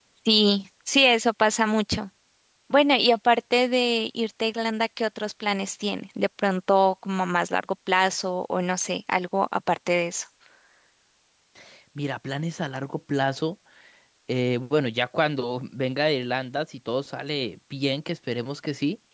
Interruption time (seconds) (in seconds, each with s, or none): none